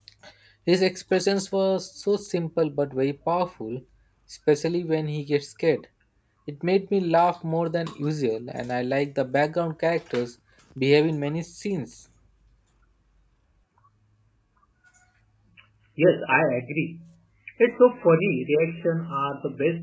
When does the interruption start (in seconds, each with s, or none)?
none